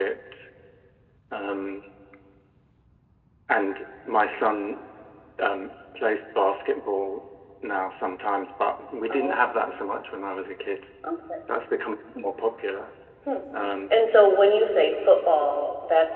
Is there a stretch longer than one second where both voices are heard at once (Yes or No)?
No